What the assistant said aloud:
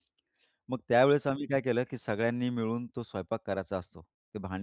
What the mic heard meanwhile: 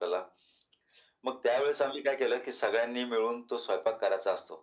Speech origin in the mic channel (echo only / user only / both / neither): echo only